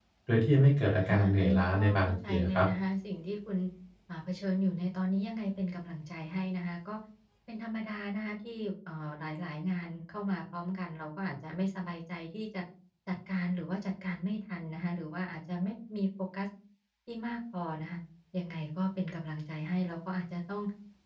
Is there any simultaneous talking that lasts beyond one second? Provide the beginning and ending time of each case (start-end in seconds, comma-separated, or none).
1.0-2.7